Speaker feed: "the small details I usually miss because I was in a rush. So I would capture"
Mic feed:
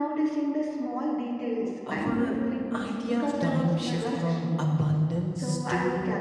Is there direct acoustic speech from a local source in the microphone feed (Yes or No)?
Yes